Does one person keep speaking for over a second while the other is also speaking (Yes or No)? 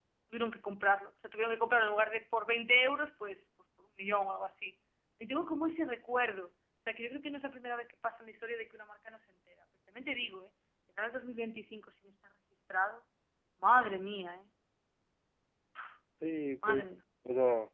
No